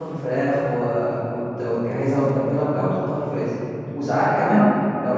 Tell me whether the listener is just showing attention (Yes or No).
Yes